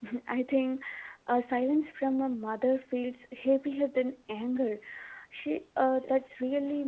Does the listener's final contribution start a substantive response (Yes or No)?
No